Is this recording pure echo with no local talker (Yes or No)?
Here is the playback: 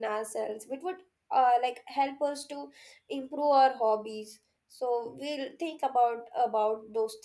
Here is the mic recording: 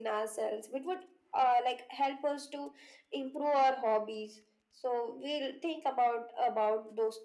Yes